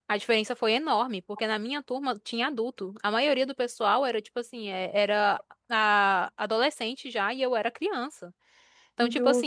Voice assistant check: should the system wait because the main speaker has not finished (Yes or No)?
Yes